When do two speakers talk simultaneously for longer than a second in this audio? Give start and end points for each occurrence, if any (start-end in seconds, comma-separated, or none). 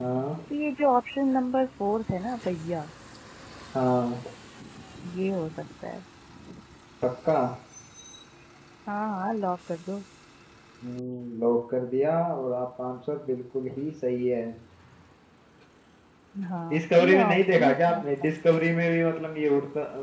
16.7-18.4